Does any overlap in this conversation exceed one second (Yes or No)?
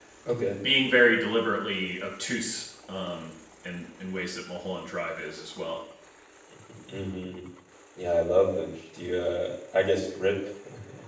No